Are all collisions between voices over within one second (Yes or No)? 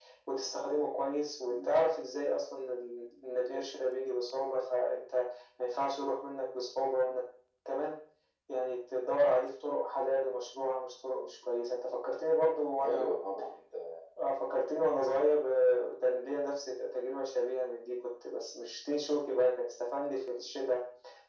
Yes